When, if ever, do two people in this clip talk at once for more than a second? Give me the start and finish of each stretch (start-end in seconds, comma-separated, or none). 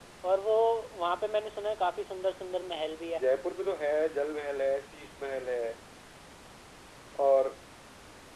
none